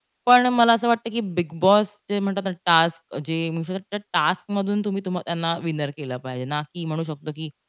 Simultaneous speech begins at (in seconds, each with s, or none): none